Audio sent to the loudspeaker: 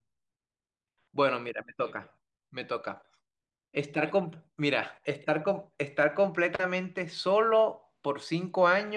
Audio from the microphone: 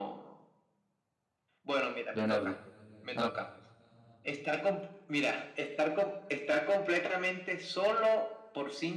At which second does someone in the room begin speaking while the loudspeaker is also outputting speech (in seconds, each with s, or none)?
2.1 s